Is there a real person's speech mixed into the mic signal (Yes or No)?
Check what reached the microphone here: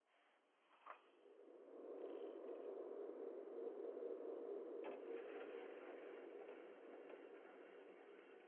No